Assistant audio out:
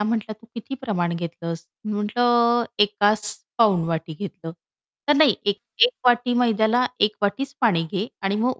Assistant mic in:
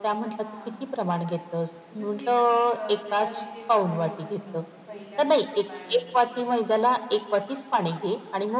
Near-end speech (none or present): present